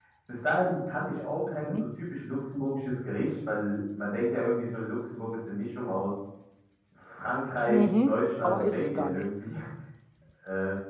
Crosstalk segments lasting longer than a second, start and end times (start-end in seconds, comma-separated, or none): 7.6-9.3